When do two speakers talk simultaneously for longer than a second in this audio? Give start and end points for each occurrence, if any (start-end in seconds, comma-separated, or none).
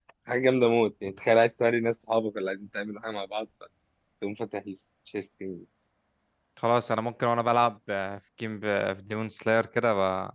none